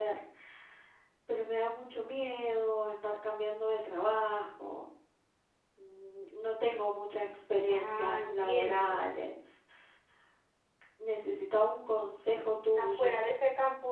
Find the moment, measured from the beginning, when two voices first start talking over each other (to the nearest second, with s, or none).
8 s